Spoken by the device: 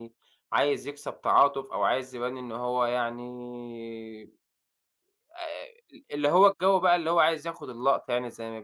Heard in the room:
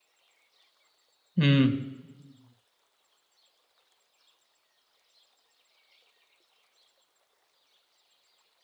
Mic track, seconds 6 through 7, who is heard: neither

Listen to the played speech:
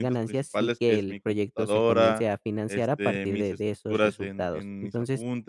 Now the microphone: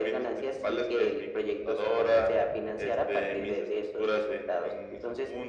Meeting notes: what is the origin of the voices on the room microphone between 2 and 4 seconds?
echo only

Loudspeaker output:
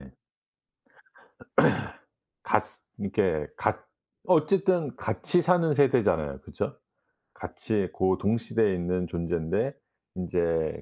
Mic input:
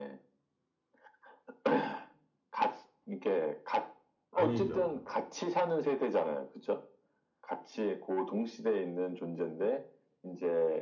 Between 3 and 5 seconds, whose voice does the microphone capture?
both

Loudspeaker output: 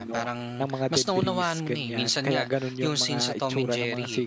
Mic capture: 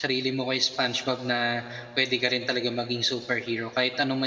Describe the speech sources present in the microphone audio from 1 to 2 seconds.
user only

